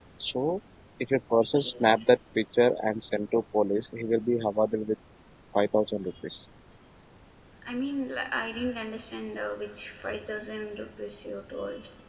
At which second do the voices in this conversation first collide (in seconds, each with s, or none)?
none